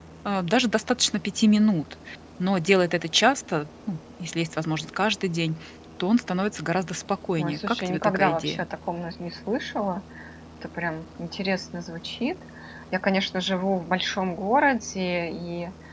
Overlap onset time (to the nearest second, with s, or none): 7 s